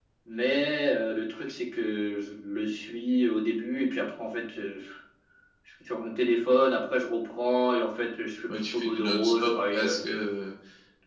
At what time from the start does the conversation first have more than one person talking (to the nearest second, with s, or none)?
8 s